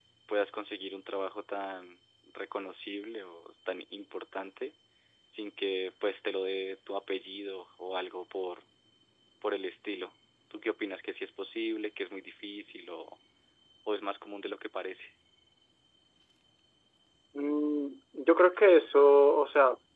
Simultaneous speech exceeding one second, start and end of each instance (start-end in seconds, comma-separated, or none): none